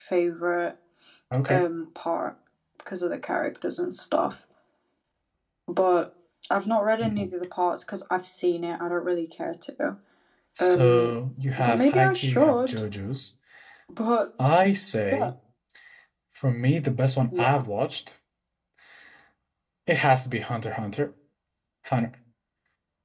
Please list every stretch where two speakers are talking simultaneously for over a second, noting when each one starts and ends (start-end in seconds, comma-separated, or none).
11.6-12.8